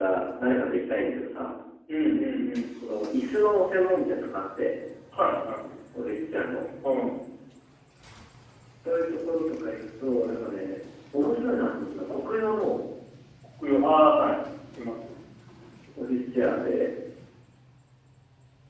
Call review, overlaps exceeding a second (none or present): none